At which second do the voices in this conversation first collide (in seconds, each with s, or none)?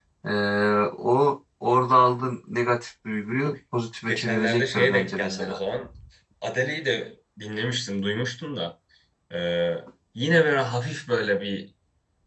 4.0 s